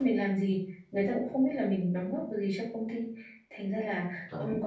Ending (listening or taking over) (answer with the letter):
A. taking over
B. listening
B